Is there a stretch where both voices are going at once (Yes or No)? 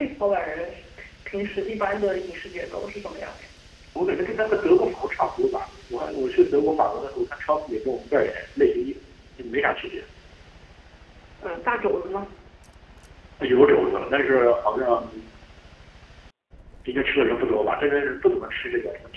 No